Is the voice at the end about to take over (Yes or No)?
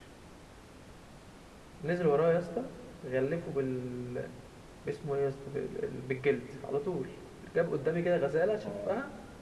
No